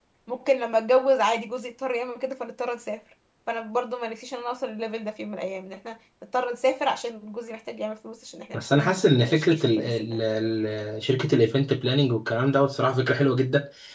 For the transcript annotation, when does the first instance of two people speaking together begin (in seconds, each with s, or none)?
8.5 s